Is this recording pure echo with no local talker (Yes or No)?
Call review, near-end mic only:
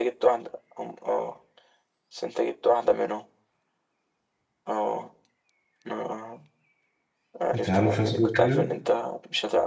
No